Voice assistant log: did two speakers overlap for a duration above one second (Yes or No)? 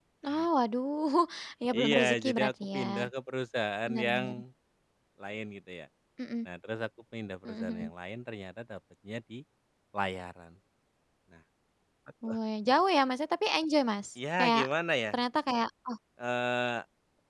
Yes